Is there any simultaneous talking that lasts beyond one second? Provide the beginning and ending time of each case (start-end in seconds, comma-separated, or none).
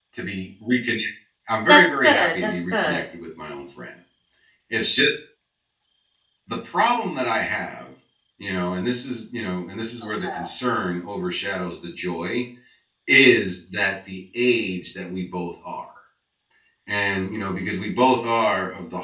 1.7-3.0